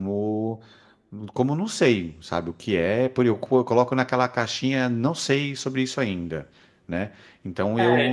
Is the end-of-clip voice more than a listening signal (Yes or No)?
Yes